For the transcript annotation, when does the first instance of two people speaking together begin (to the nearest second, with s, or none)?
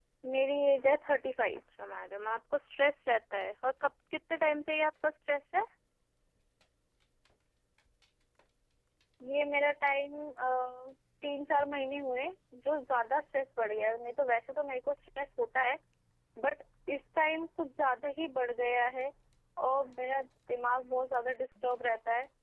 none